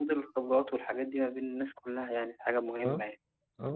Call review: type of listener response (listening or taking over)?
taking over